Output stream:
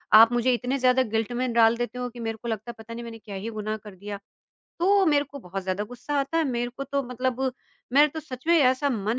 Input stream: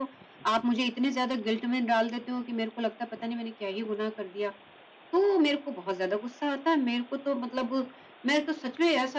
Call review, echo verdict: present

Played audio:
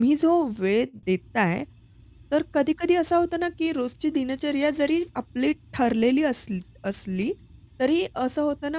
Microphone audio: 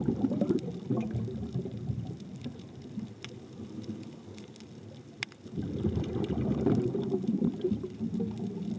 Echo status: none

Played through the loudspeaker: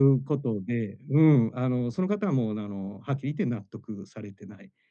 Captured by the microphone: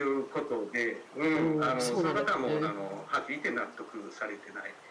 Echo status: present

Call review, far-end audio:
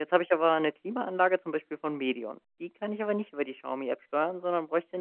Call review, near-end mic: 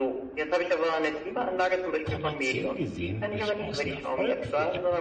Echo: present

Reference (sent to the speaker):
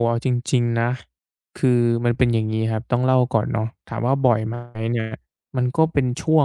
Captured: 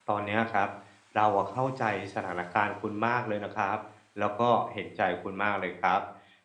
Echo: none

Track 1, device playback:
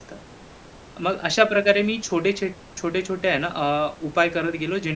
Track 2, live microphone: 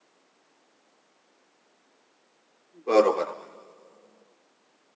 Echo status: none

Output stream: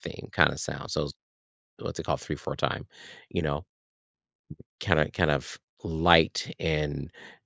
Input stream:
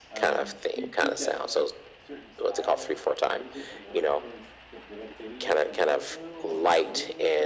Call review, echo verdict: present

